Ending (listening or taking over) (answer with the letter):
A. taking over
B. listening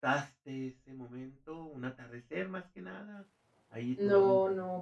A